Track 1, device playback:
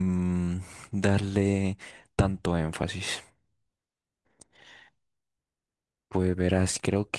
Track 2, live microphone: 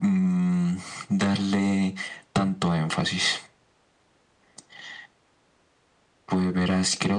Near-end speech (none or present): none